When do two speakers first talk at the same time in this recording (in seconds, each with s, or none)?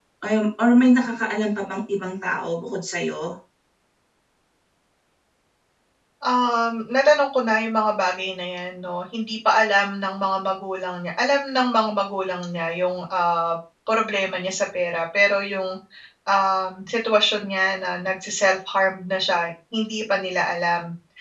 none